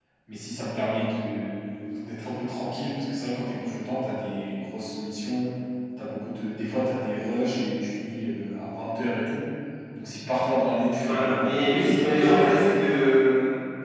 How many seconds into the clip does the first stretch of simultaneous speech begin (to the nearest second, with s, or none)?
11 s